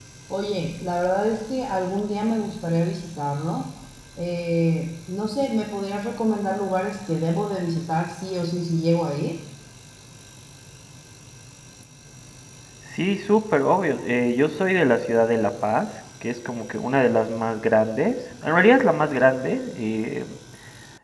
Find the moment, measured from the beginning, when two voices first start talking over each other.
none

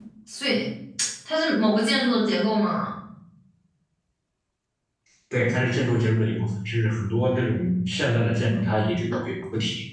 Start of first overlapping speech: none

